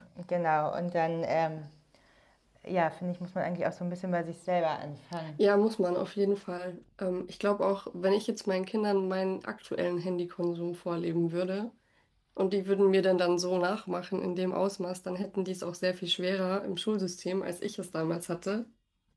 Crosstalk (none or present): none